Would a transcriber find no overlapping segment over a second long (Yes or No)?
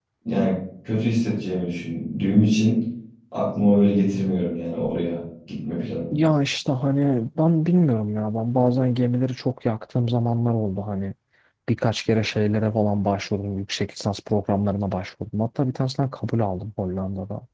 Yes